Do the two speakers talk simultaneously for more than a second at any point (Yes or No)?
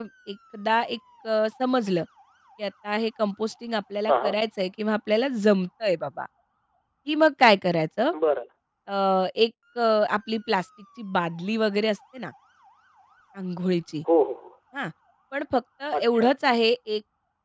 No